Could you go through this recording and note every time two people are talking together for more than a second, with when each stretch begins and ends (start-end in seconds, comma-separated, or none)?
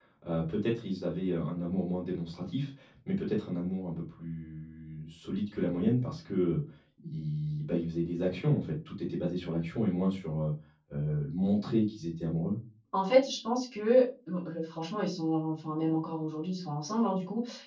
none